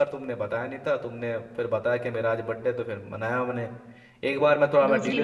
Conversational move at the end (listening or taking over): listening